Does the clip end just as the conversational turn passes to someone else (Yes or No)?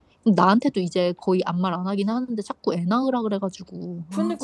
Yes